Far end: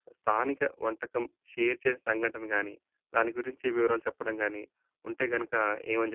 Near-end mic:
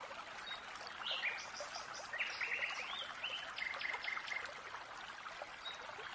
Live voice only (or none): none